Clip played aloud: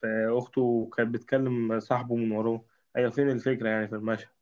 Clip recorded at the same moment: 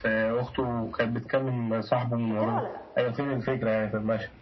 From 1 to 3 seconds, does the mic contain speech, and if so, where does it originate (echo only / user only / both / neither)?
both